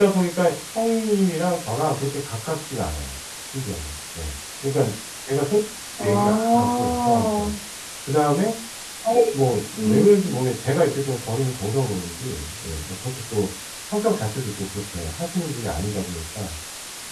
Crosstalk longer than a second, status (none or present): present